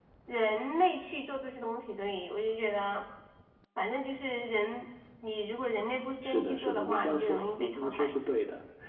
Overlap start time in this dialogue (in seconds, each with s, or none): 6.2 s